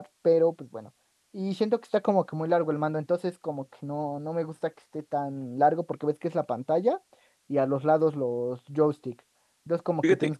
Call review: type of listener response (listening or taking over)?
listening